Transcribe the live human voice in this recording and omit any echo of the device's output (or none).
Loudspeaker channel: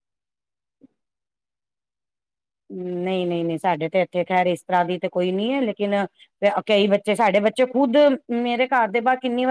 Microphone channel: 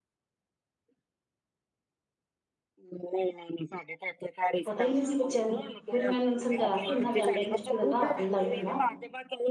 ਪਤਾ ਨੀ ਸੀ ਬੱਚਿਆਂ ਨੂੰ, ਫੇਰ ਮੈਂ ਏਨਾਂ ਨੂੰ ਸਮਝਾਇਆ ਕੀ ਏਨਾਂ ਦੇ ਆਂਡੇ ਨੀ ਚੁੱਕੀ ਦਾ ਹੁੰਦਾ, ਹੱਥ ਨੀ ਲਾਈ ਦਾ ਹੁੰਦਾ।